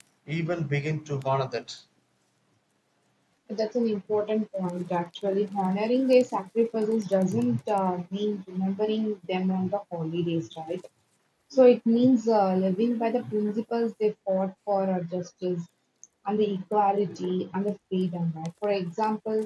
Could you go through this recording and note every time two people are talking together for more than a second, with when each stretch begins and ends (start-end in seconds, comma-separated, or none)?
none